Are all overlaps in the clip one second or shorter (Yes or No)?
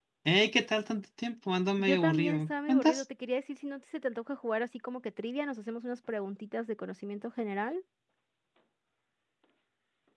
No